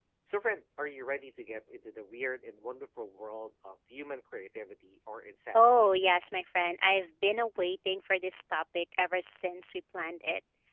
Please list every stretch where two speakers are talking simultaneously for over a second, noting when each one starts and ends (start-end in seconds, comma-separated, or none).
none